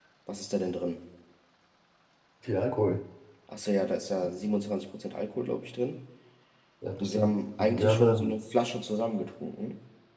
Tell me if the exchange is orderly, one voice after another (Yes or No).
No